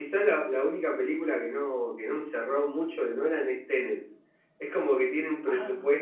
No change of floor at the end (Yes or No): Yes